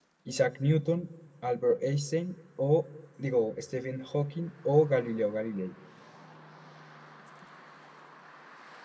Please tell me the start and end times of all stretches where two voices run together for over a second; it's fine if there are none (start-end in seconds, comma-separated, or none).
none